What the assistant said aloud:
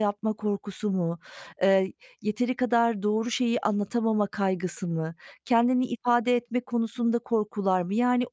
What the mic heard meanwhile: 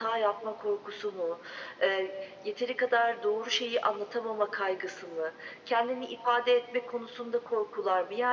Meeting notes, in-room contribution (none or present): none